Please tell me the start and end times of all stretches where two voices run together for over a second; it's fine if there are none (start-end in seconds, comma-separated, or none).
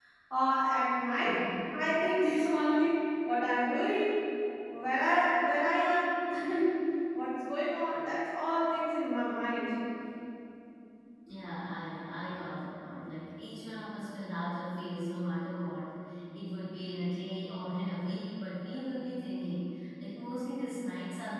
none